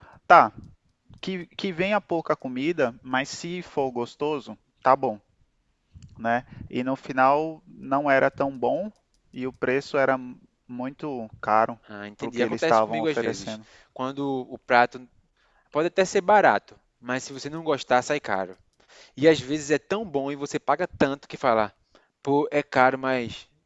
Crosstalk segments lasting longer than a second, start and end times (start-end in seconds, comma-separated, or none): 12.2-13.5